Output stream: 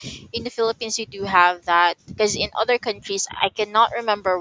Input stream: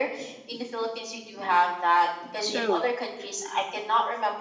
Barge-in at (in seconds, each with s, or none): 2.4 s